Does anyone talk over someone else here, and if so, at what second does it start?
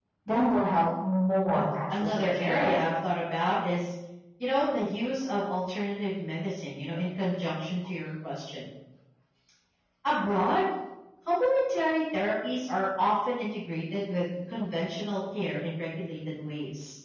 2 s

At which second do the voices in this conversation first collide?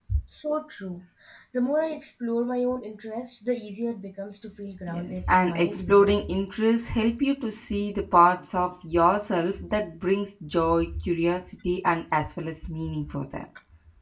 5 s

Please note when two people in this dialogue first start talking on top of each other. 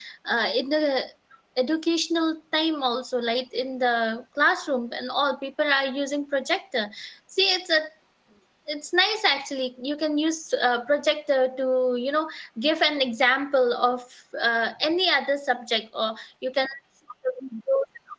none

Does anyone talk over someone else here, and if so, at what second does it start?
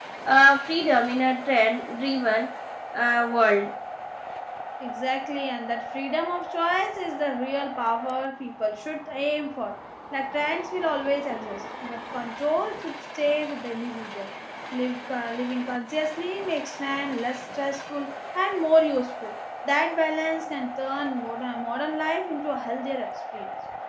none

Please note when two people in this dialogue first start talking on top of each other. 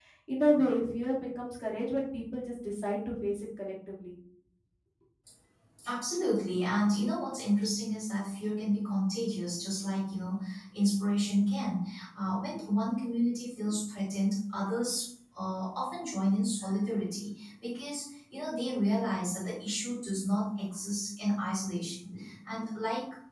none

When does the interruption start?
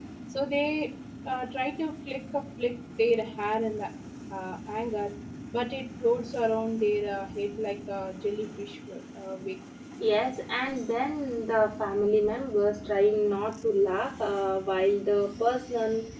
none

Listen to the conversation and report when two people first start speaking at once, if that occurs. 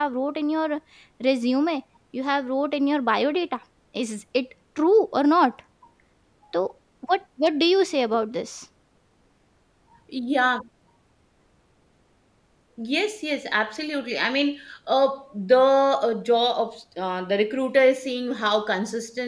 none

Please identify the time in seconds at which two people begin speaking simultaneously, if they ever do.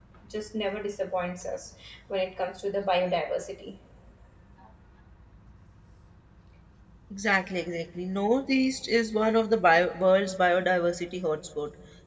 none

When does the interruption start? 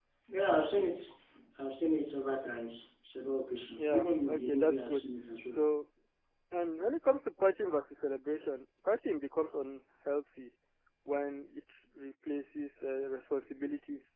4 s

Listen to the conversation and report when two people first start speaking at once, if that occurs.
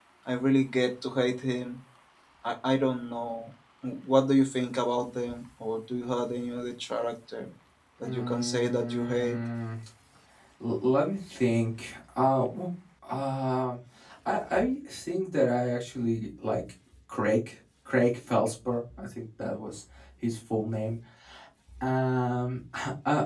8 s

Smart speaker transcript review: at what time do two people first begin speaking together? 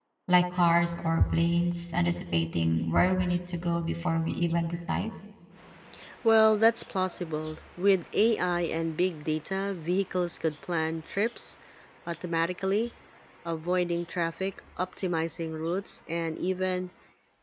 none

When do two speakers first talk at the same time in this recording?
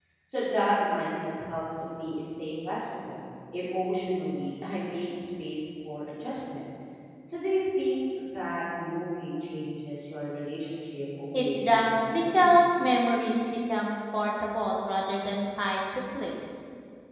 11 s

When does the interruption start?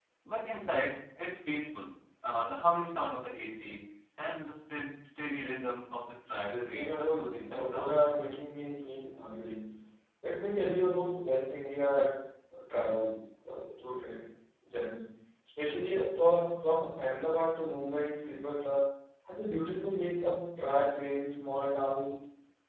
6 s

